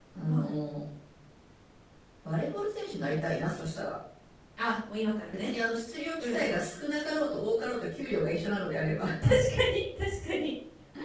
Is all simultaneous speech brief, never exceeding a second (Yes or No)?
Yes